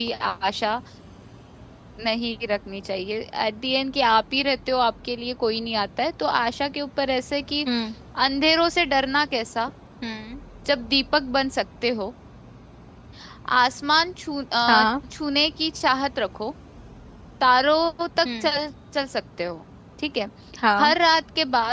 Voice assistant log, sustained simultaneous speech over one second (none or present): none